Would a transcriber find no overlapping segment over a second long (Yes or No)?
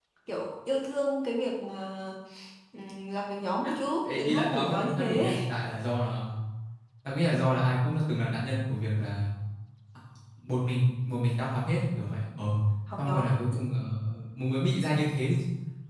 No